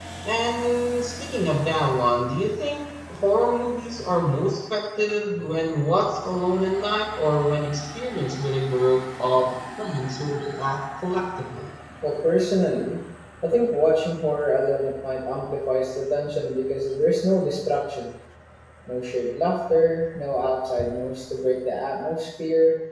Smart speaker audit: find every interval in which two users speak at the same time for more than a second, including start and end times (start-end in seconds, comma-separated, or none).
none